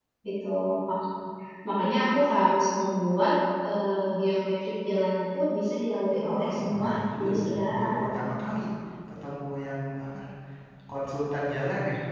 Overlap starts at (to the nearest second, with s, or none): 6 s